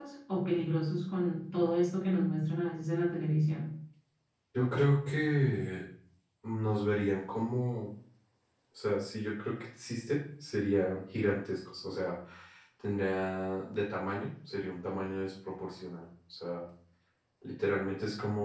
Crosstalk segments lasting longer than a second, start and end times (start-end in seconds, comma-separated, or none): none